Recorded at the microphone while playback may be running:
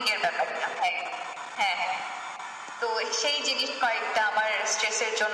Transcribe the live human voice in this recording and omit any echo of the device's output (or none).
none